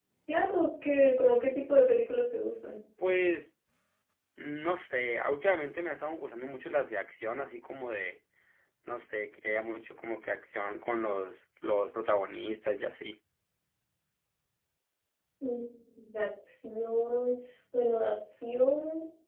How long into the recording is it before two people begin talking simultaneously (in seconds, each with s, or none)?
none